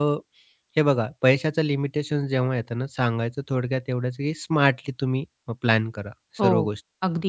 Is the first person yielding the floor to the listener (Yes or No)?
Yes